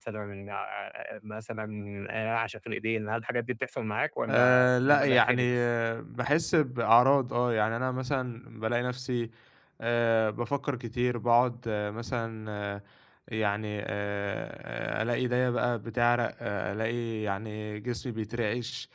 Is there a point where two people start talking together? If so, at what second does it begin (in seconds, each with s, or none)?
4.3 s